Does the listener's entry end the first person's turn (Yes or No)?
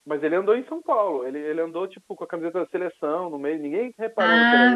Yes